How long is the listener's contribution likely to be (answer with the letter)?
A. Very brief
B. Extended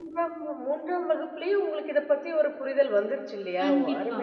B